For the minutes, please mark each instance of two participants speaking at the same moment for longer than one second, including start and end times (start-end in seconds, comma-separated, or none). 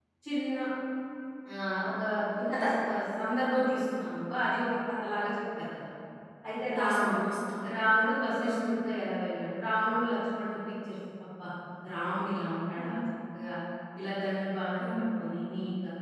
none